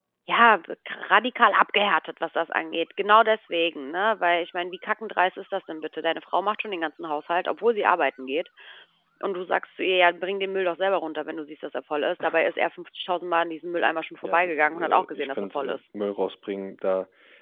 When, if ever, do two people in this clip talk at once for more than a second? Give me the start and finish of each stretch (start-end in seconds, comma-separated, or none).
14.2-15.8